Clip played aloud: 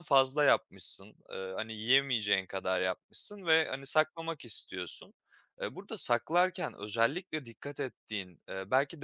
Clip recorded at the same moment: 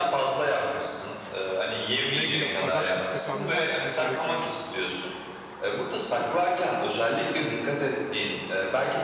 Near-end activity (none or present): present